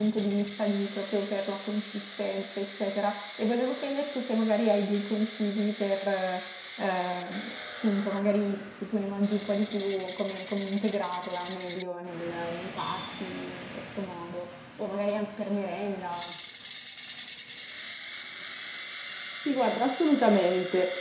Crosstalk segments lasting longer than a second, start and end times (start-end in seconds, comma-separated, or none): none